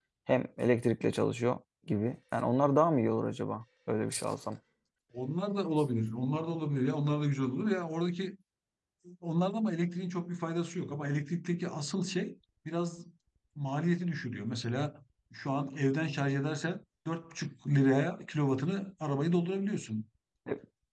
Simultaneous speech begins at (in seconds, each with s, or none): none